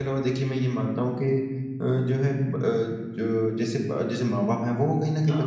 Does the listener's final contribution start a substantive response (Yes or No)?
No